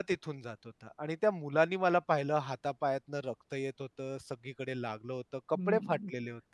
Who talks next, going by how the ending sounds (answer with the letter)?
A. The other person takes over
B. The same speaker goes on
A